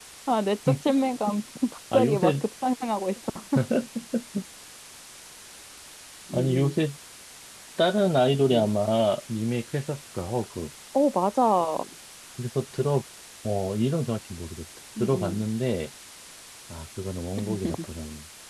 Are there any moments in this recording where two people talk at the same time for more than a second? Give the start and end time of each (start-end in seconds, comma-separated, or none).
none